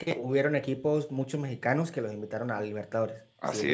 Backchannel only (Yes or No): No